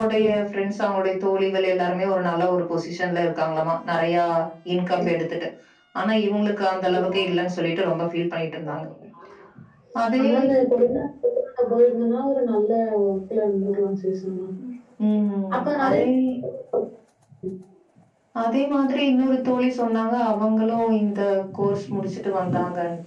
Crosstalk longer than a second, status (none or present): none